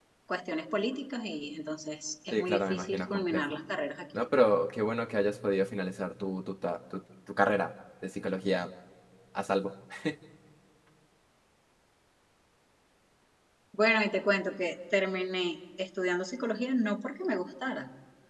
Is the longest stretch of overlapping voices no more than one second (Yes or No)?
No